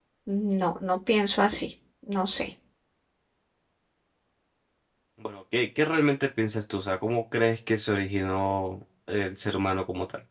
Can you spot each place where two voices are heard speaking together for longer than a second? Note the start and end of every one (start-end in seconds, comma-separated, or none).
none